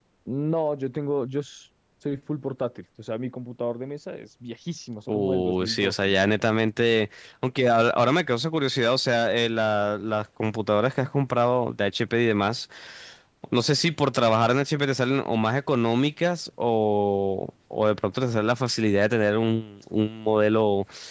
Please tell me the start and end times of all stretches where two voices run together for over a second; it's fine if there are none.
5.1-6.4

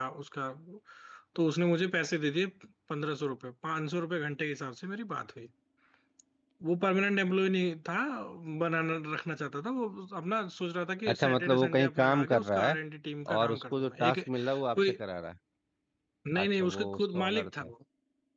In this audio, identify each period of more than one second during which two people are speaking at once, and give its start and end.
11.1-12.8, 13.4-14.9, 16.4-17.7

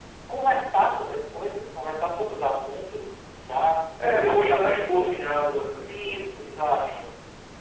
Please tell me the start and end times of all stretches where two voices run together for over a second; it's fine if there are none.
4.2-6.2

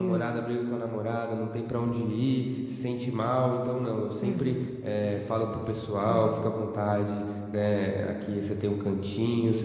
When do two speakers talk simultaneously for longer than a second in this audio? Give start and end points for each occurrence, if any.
none

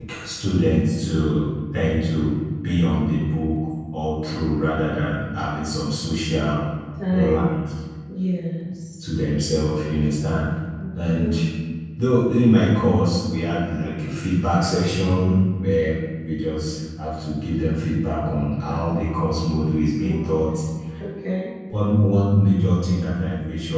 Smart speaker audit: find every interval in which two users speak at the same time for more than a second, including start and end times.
none

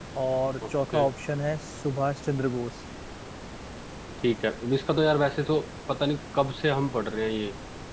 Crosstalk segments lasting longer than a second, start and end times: none

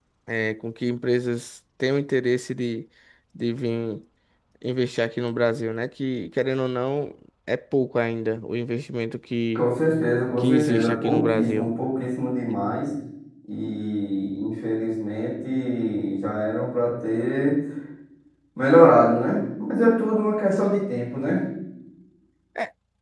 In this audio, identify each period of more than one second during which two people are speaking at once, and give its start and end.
10.4-11.7

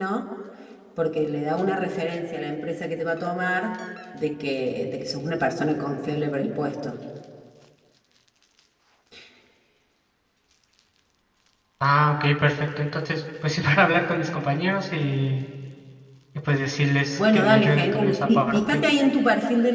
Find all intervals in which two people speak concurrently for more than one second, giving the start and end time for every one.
17.2-18.8

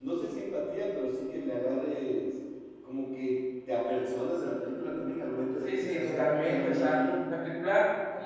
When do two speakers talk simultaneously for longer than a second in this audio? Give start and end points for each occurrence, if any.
5.6-7.0

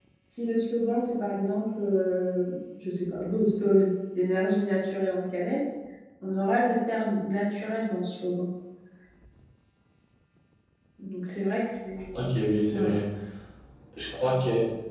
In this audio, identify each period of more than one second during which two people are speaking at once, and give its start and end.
none

